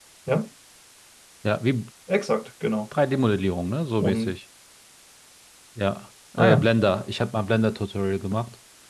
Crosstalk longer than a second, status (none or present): none